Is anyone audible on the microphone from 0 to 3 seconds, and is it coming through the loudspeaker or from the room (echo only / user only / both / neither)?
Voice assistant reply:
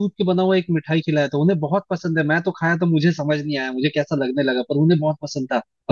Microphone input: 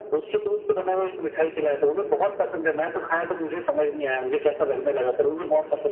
echo only